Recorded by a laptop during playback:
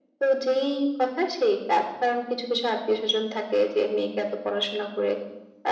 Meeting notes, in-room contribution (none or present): none